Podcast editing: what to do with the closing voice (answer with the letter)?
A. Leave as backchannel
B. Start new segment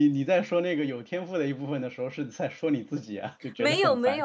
B